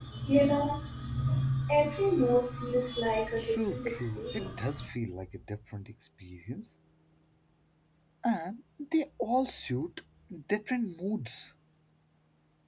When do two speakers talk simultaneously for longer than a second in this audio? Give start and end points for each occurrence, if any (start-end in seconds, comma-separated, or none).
3.4-4.8